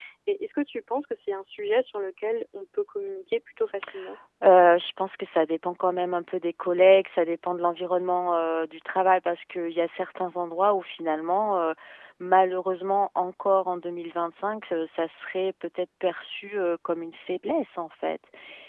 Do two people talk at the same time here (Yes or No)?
No